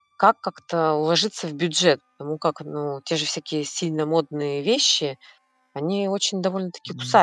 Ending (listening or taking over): taking over